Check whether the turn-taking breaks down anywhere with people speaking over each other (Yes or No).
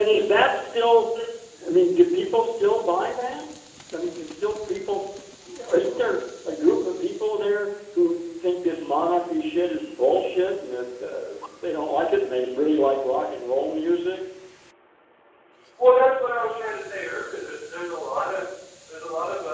No